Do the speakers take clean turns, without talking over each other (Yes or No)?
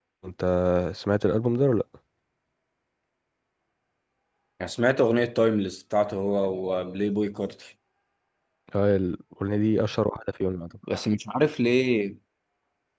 Yes